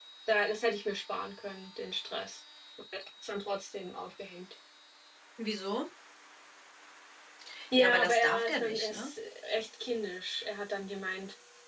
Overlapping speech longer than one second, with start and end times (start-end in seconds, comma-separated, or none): 7.8-9.1